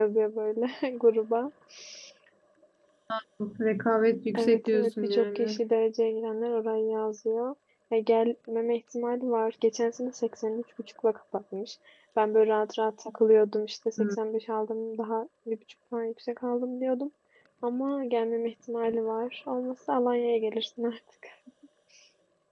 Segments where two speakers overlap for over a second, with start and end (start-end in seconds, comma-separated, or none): 4.3-5.6